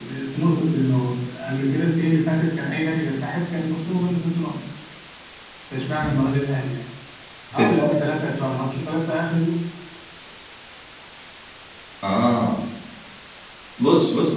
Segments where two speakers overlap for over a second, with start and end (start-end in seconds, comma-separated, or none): none